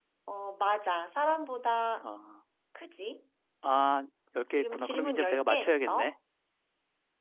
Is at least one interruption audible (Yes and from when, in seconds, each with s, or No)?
Yes, from 4.5 s